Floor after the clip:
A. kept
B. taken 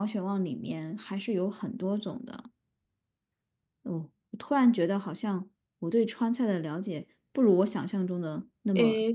B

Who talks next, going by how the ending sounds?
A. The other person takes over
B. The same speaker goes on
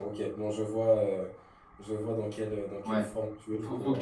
A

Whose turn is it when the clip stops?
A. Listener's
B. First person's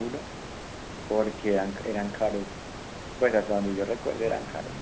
A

